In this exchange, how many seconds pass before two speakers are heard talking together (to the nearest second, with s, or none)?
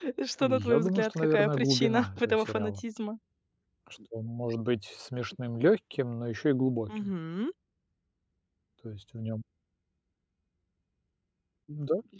1 s